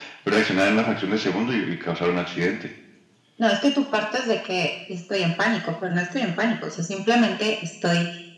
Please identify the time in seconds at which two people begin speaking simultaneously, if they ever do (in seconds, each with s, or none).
none